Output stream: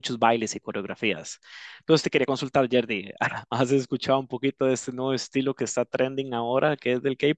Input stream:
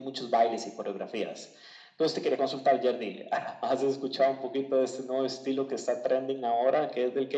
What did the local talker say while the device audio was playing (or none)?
none